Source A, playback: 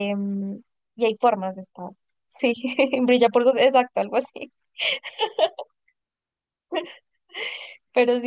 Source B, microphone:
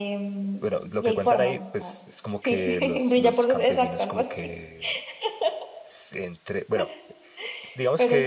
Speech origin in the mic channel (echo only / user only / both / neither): both